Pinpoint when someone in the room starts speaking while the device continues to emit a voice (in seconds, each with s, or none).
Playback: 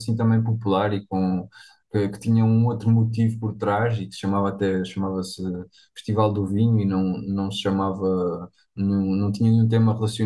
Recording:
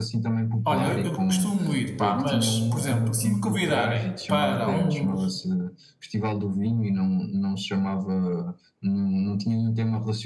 0.6 s